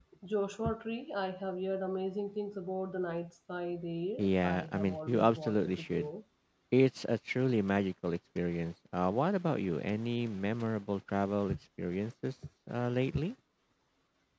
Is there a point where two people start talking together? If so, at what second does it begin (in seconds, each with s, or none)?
4.2 s